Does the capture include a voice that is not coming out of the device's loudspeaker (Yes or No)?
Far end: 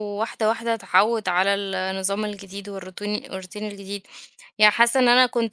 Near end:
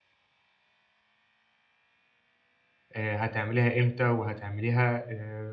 Yes